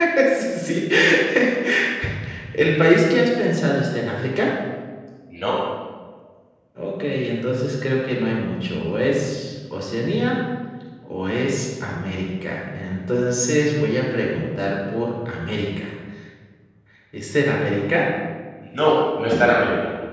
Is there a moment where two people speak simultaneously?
No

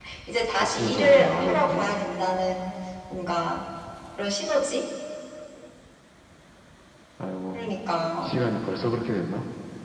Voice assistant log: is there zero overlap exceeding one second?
No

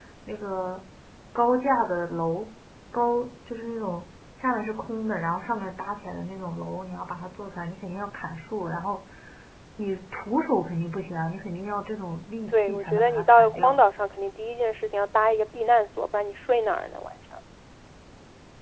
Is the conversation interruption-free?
No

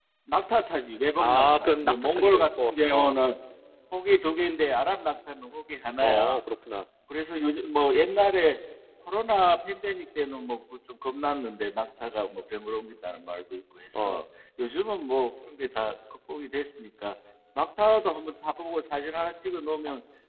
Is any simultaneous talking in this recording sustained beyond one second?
Yes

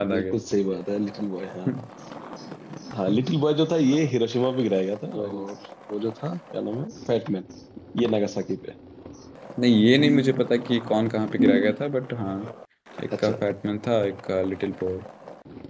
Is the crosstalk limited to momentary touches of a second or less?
Yes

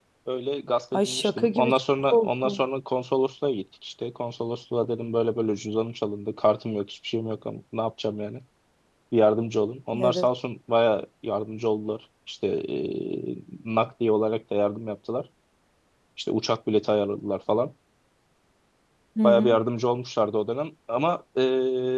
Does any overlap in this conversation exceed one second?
Yes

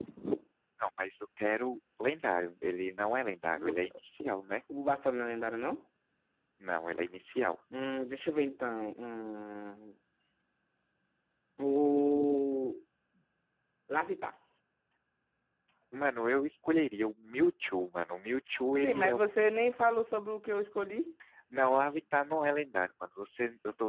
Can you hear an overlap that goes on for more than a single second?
No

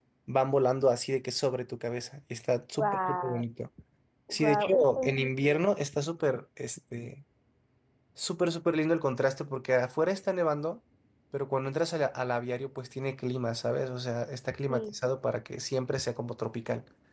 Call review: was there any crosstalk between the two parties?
Yes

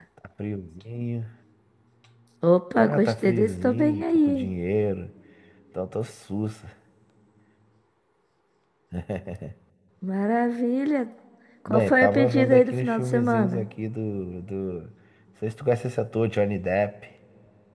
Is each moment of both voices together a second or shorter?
No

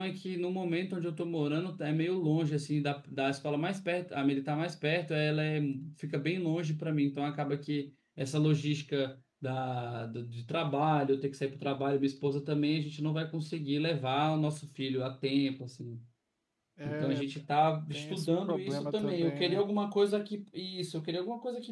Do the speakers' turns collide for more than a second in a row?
Yes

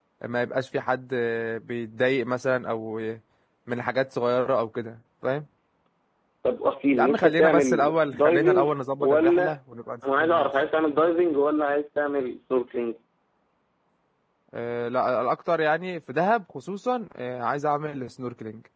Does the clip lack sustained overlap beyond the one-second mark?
No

